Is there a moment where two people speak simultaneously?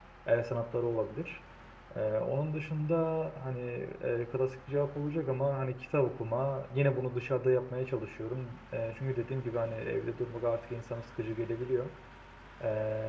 No

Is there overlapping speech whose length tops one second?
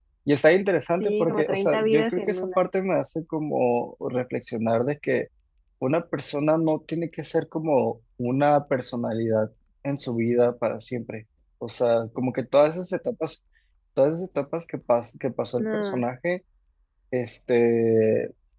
Yes, from 1.0 s

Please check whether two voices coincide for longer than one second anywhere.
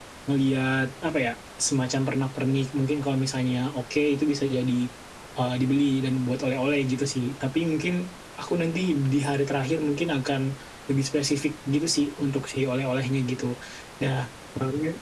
No

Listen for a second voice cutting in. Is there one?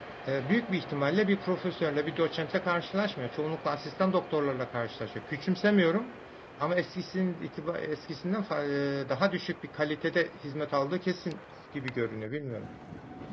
No

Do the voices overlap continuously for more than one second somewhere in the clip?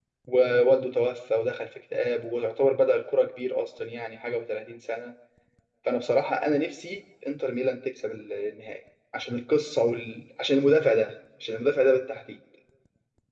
No

